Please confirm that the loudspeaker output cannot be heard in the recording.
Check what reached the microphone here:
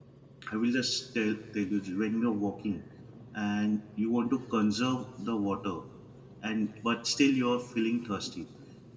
Yes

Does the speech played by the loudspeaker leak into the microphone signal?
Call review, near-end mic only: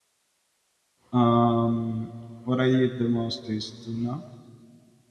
No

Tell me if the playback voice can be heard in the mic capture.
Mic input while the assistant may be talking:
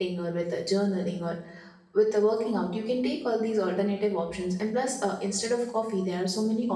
No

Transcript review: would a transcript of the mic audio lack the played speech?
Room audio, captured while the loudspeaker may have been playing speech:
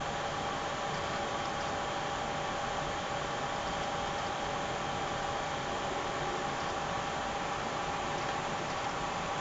Yes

